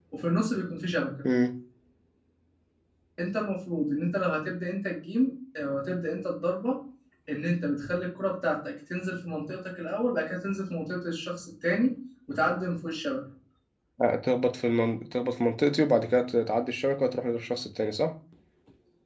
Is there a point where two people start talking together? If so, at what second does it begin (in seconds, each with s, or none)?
none